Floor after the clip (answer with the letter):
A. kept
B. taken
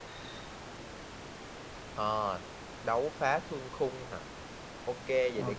A